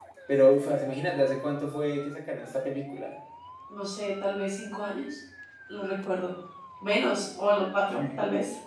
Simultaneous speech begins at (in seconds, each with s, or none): none